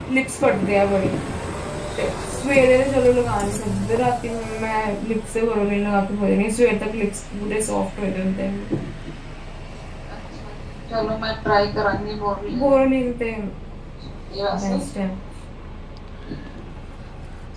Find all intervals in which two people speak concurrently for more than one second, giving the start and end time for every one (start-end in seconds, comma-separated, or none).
none